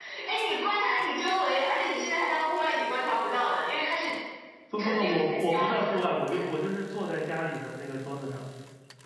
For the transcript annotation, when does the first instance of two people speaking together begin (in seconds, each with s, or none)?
4.8 s